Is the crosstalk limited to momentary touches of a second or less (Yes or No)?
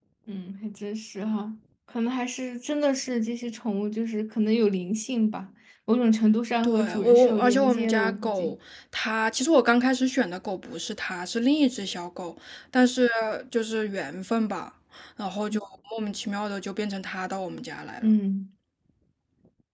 No